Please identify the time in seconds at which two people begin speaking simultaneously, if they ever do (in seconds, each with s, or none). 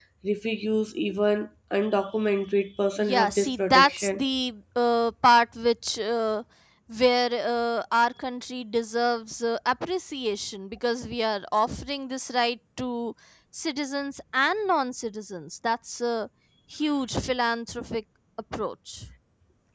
3.0 s